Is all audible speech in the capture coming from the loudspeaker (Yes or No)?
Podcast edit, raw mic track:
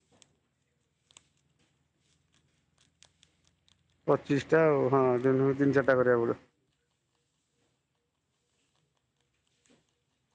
No